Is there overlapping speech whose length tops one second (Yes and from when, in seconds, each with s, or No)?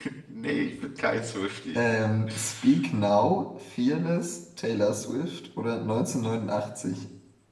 No